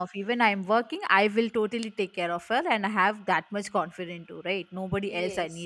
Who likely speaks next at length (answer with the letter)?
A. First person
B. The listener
A